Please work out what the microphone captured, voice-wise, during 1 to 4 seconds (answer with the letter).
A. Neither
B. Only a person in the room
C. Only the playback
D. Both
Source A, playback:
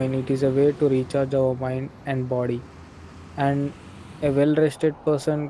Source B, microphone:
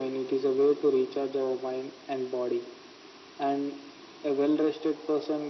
C